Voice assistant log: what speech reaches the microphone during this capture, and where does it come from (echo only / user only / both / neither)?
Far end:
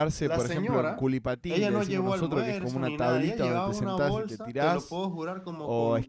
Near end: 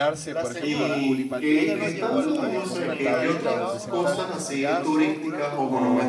both